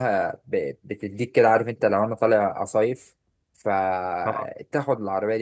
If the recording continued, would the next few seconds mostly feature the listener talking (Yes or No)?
No